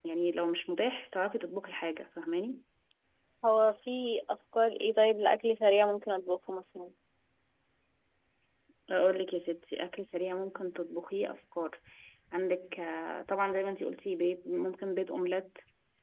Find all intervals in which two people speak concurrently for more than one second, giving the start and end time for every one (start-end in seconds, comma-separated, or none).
none